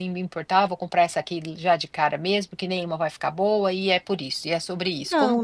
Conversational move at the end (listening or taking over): taking over